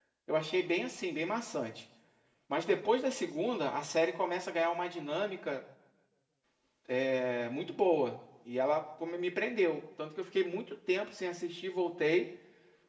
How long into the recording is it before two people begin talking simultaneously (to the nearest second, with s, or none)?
none